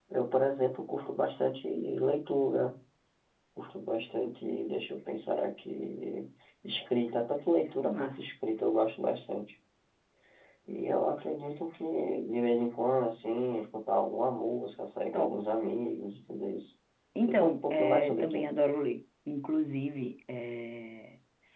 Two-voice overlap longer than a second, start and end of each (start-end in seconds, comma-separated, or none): 17.2-18.4